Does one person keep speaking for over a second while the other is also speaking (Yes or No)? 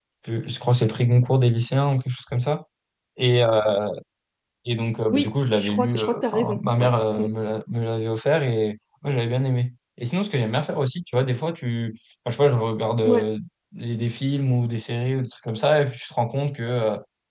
Yes